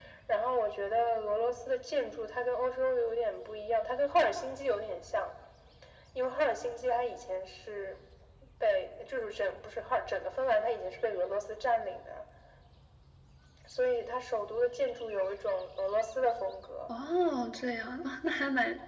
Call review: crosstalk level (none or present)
none